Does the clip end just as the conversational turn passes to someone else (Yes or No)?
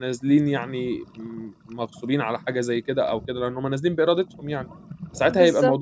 No